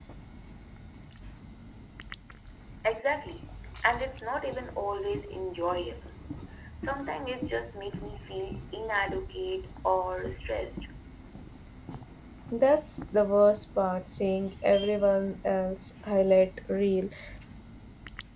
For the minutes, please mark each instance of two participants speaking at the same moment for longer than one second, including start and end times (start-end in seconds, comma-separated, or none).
none